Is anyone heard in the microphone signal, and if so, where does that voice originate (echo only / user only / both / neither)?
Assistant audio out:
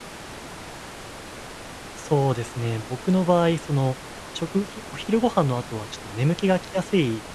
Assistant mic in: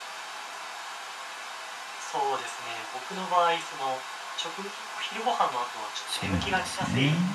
both